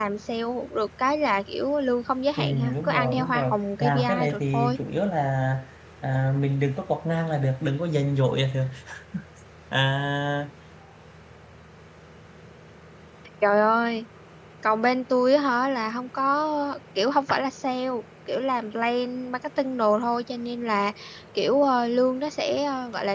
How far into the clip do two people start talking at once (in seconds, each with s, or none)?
2.4 s